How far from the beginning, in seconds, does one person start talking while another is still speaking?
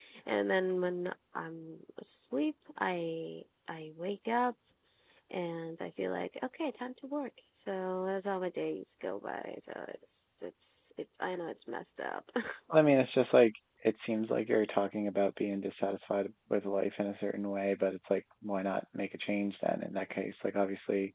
none

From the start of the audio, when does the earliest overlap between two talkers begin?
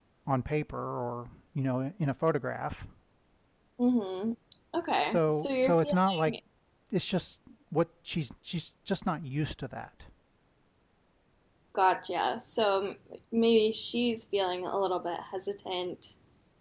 5.0 s

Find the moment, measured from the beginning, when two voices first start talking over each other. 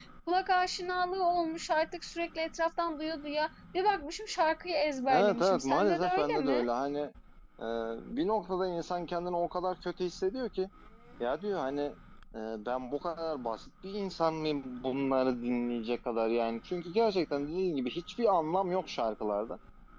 5.1 s

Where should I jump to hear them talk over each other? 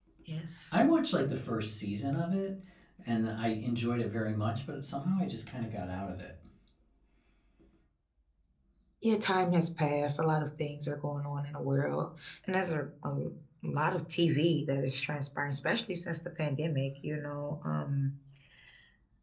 none

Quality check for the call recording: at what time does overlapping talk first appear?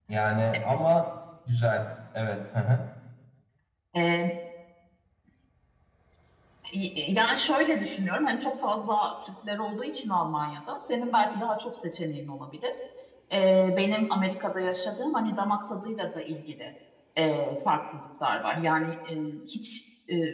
none

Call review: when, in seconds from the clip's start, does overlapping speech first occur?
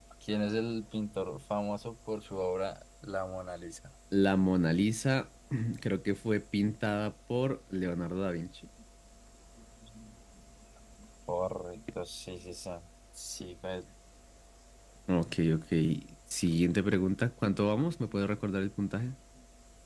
none

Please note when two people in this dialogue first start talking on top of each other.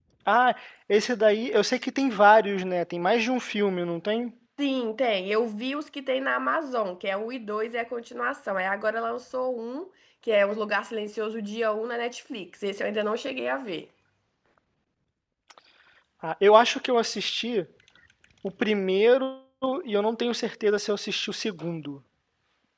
none

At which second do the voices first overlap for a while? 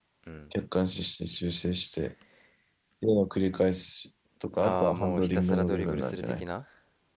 4.6 s

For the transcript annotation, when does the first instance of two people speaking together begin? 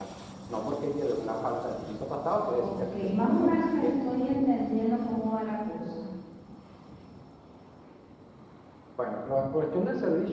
2.5 s

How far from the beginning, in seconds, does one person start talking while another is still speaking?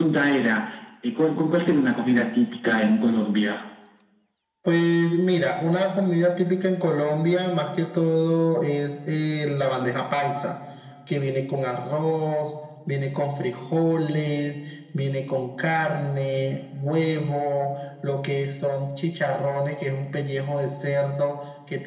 none

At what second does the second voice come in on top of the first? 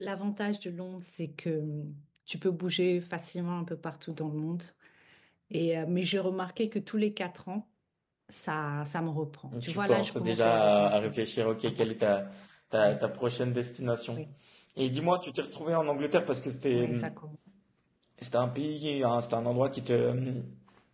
9.7 s

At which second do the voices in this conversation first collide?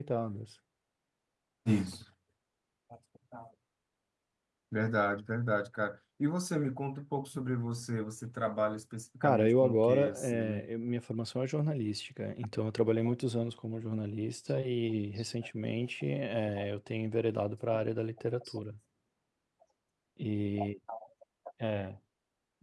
9.2 s

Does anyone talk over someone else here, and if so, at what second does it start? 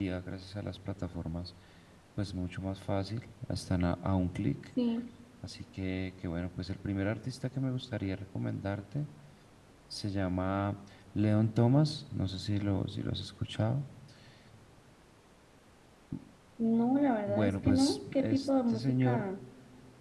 17.3 s

